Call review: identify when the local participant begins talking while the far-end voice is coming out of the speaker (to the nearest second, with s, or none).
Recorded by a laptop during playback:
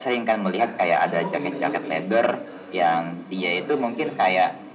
1 s